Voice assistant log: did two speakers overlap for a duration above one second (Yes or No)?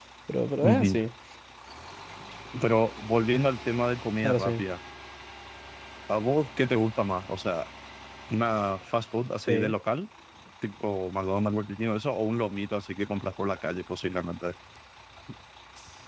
No